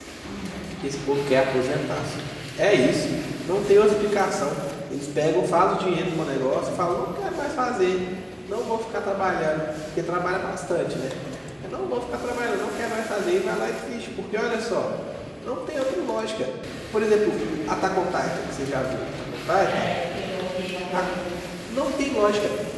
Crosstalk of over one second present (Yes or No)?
No